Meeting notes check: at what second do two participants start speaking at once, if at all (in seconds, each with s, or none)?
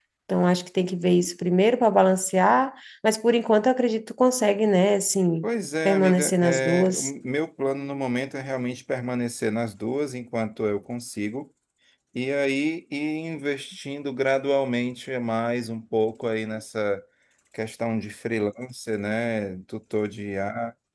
5.8 s